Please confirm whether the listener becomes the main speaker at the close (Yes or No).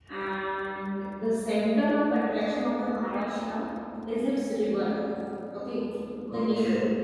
No